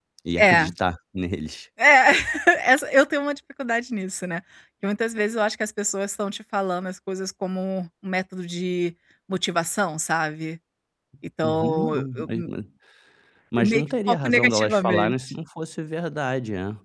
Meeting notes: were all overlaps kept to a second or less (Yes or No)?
No